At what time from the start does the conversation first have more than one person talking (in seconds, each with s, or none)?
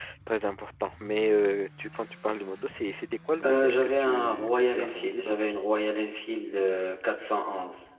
3.4 s